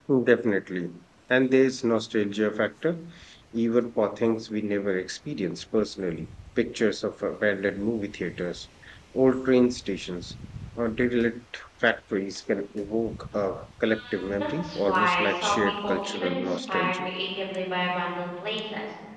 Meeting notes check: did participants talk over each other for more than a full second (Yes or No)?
Yes